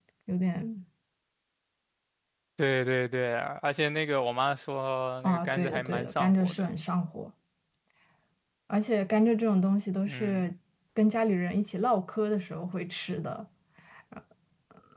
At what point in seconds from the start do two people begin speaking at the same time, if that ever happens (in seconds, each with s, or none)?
5.2 s